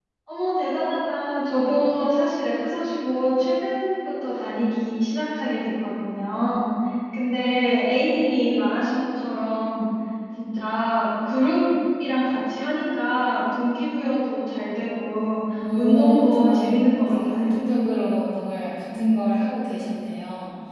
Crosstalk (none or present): present